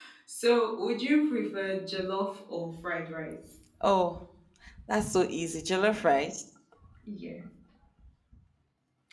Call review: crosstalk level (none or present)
none